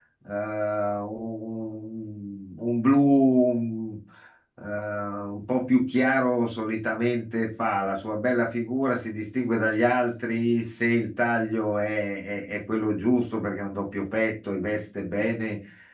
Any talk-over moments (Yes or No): No